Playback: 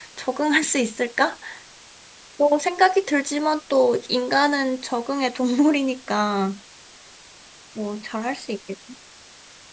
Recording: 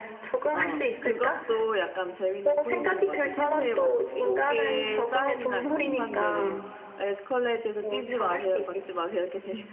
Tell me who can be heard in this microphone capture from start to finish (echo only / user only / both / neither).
both